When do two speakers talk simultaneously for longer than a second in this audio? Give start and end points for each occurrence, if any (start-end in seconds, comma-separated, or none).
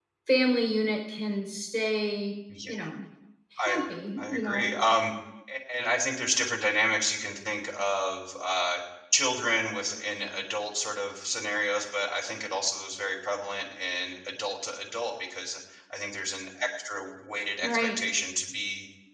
none